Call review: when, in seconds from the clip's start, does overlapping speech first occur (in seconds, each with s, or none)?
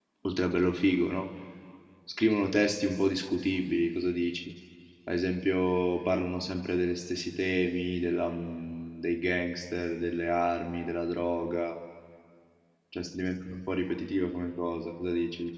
none